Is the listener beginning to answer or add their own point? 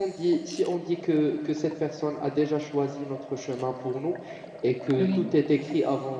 No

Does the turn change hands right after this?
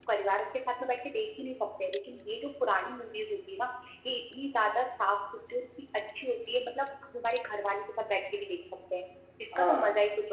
Yes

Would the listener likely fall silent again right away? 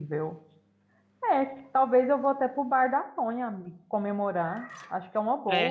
No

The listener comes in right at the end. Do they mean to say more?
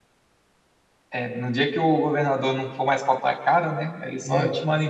No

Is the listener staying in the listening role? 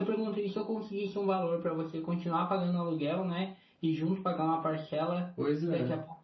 Yes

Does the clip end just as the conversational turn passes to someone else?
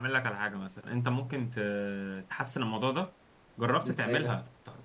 No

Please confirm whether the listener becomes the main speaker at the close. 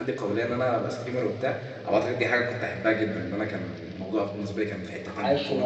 Yes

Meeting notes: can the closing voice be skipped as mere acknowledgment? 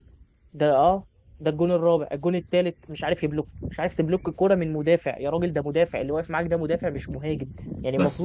Yes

